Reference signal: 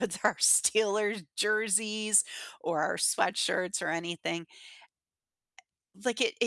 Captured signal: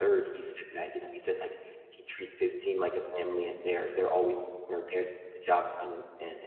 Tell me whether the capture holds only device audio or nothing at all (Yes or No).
No